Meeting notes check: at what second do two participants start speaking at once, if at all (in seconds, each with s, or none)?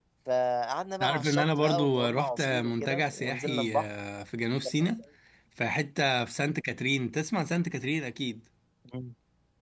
1.0 s